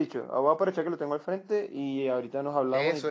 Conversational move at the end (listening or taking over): taking over